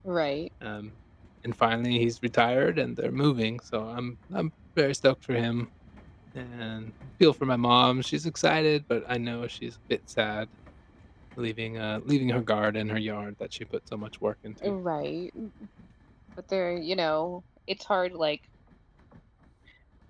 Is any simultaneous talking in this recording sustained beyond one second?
No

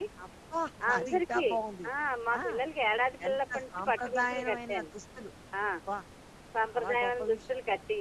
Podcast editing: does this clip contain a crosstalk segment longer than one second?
Yes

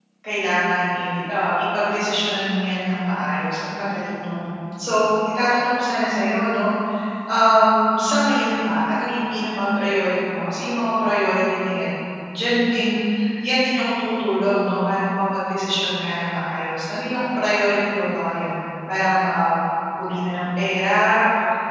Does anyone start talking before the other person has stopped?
No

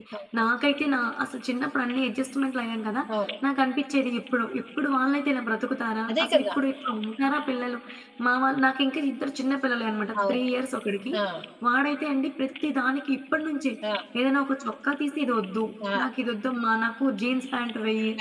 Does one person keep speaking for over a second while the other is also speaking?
No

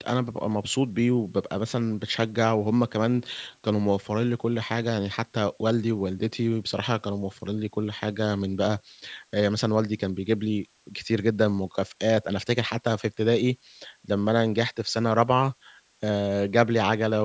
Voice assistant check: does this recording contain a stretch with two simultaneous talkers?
No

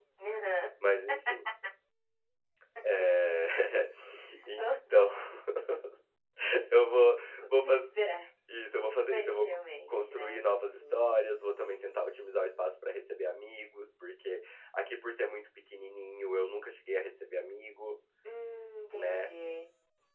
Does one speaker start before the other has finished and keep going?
Yes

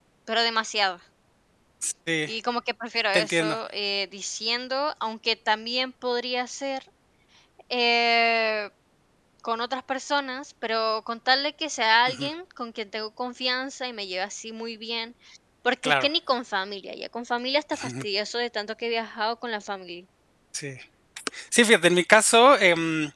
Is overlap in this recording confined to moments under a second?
Yes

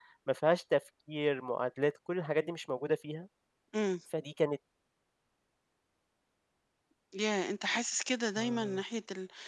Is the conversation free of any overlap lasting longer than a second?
Yes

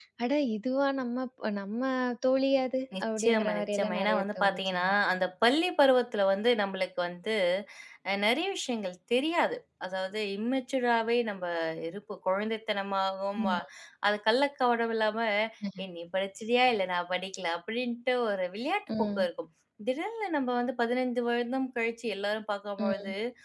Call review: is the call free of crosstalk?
No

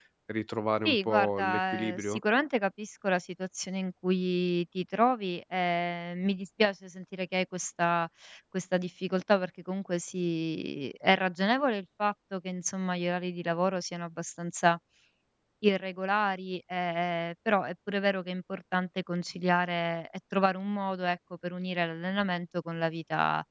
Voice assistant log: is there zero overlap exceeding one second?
No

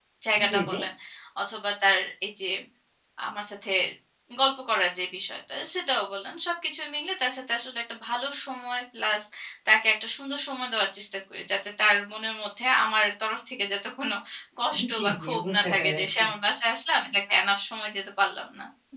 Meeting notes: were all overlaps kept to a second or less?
No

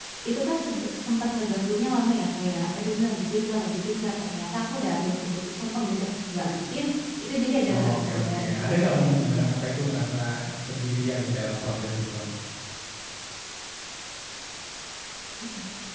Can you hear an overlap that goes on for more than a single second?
Yes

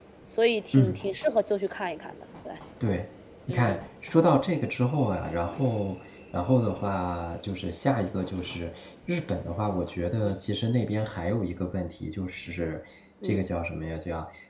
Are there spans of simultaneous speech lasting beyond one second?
No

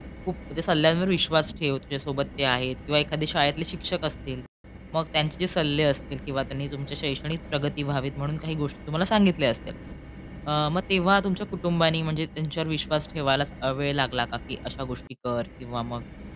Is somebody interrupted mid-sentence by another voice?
No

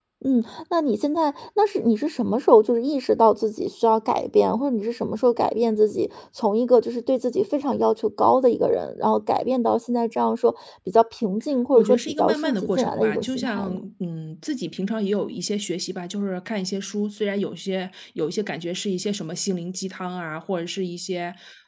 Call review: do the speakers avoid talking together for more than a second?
No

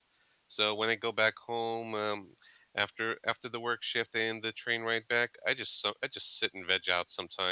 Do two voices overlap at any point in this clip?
No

